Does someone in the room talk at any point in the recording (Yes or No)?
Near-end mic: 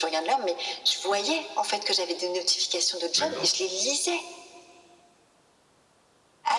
Yes